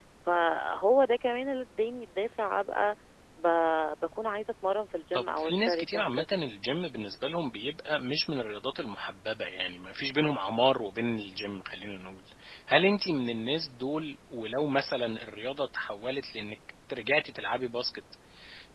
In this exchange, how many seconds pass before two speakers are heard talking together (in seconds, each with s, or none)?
5.1 s